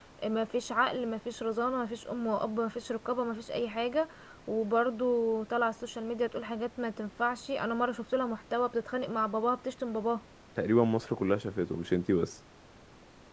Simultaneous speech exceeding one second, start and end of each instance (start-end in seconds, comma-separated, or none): none